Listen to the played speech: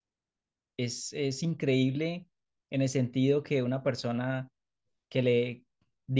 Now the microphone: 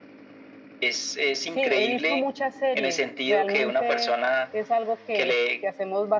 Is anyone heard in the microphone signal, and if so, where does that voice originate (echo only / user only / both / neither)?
both